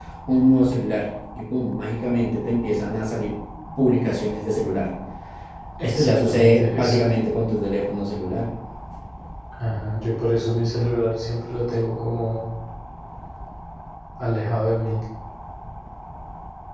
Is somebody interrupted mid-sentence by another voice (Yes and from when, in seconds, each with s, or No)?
Yes, from 5.8 s